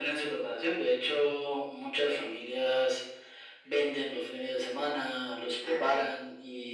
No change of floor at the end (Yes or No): Yes